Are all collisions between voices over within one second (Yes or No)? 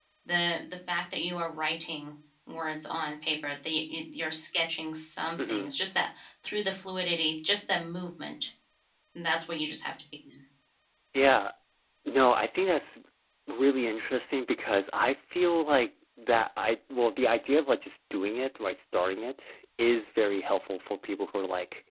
Yes